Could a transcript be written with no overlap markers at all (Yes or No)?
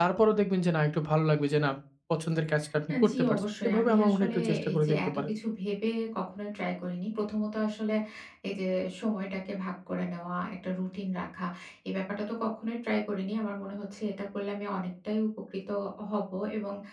No